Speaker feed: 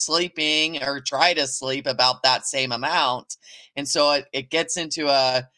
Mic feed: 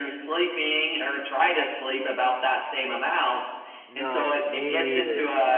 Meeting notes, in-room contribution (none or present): present